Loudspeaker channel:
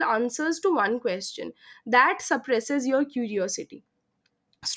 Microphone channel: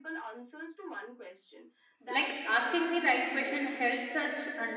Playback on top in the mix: No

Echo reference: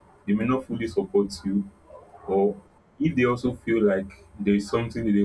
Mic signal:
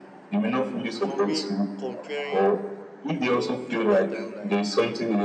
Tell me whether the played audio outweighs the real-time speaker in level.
Yes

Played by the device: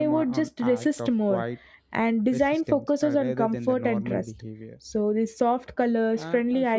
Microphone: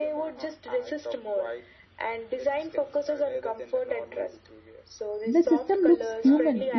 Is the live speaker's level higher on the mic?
Yes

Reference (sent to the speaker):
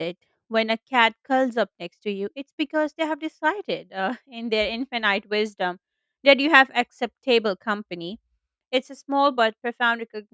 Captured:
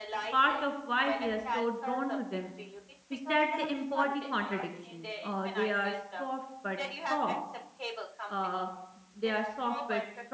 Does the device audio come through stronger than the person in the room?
No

